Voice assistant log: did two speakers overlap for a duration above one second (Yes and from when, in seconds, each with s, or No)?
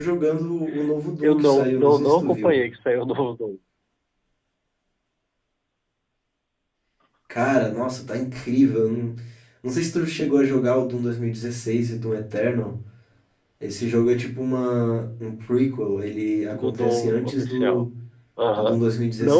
Yes, from 1.2 s